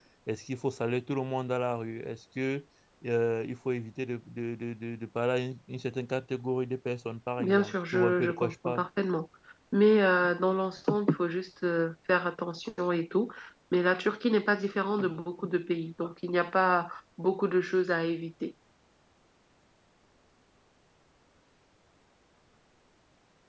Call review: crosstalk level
present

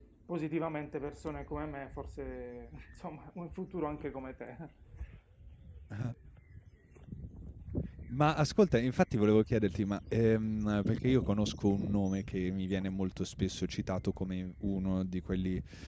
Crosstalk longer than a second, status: none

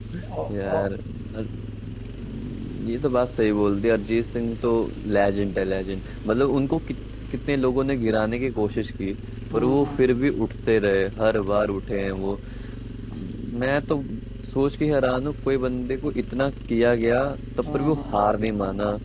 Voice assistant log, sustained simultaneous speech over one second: none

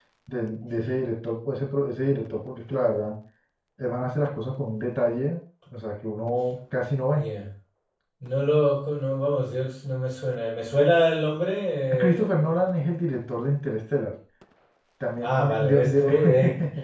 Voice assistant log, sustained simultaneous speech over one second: present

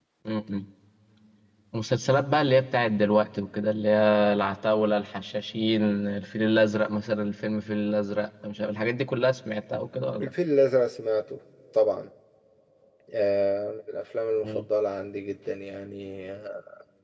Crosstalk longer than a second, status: none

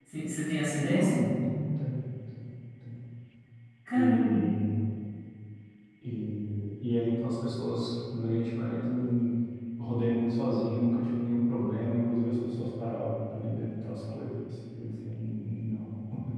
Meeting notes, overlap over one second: none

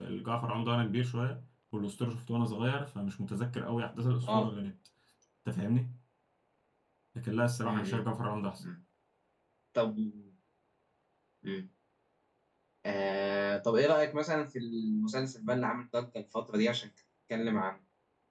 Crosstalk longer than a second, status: none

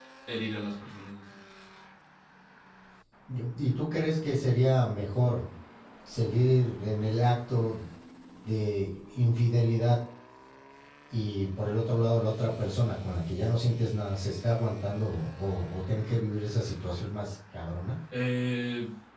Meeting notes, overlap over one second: none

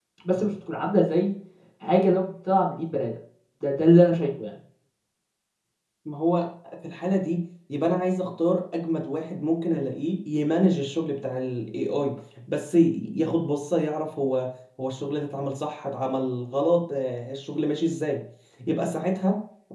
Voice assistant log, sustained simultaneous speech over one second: none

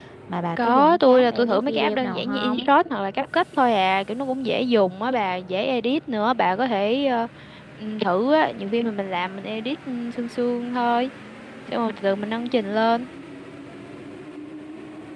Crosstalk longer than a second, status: present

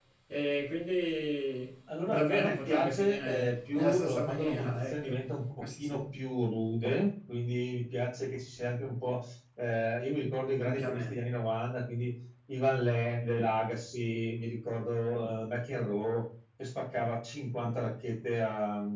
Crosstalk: present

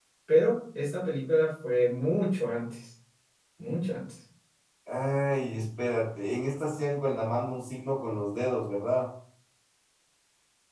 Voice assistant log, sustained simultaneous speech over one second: none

